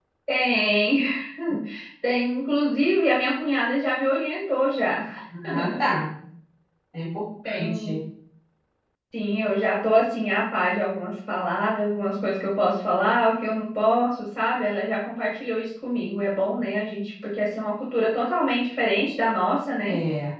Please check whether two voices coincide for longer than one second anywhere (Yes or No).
No